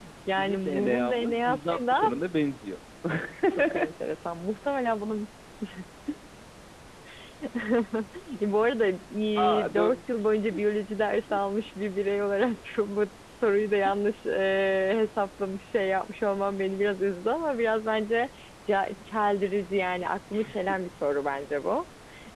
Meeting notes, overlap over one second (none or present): present